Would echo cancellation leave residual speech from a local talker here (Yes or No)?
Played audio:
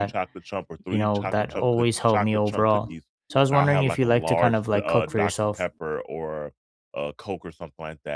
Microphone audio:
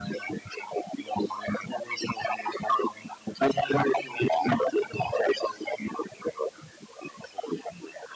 No